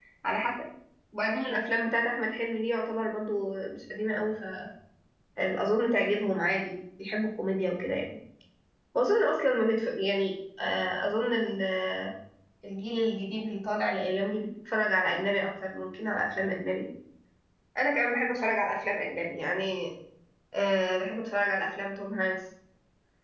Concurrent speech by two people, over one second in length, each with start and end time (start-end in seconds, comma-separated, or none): none